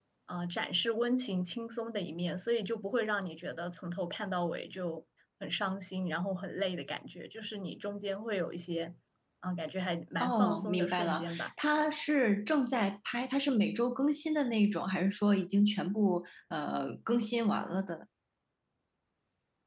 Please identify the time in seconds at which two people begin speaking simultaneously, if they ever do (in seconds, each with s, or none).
10.2 s